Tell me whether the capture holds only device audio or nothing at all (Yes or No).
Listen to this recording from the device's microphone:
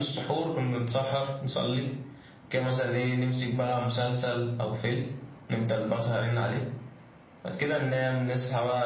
Yes